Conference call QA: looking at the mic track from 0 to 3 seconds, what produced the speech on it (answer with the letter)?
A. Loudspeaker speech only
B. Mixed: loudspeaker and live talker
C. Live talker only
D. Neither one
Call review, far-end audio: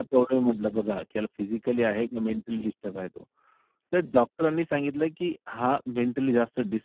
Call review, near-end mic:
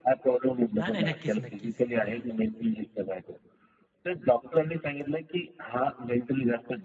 B